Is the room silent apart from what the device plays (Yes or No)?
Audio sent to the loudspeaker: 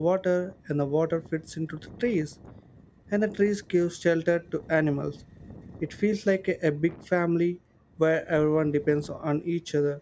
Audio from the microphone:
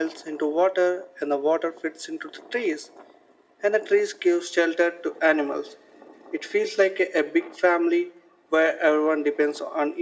Yes